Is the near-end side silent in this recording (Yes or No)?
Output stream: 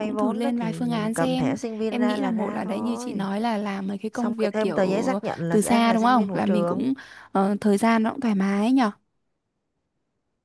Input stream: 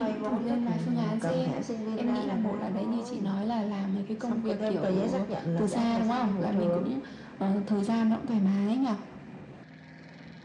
Yes